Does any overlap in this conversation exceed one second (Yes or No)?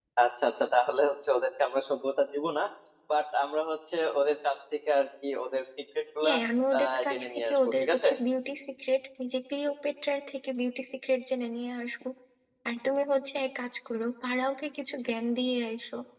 Yes